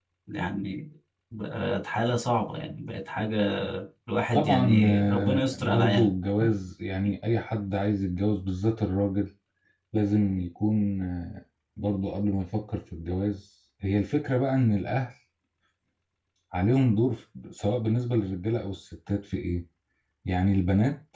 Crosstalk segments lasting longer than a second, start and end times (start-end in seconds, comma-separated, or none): 4.3-6.1